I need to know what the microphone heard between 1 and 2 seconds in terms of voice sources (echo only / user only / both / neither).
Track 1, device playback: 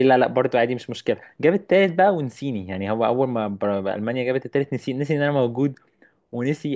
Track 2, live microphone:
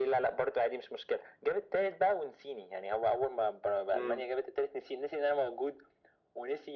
echo only